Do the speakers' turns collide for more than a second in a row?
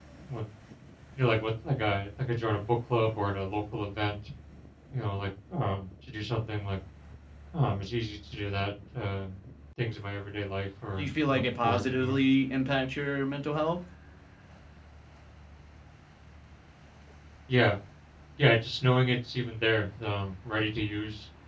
Yes, from 11.0 s

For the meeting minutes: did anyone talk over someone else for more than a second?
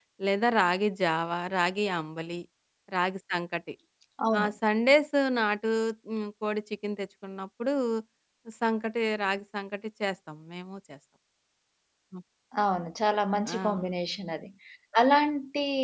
No

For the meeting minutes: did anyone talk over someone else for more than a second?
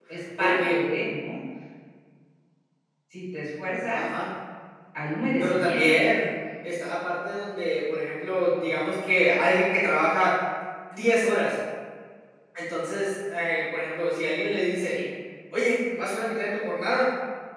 No

